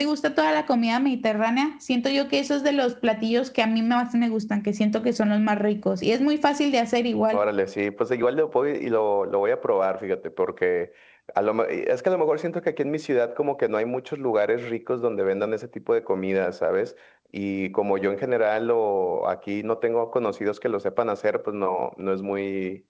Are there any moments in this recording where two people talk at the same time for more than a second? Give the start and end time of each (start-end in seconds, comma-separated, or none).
none